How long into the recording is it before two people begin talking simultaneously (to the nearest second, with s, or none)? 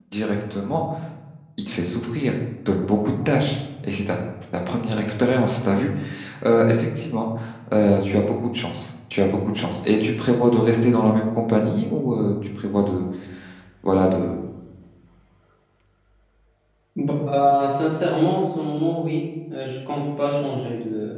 none